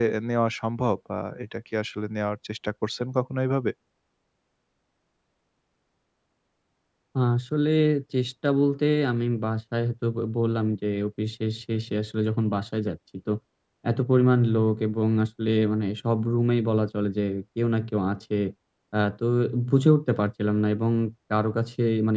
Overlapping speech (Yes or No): No